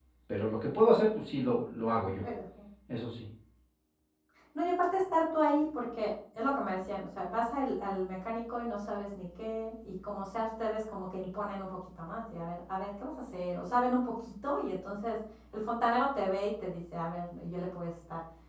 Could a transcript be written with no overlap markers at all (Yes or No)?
Yes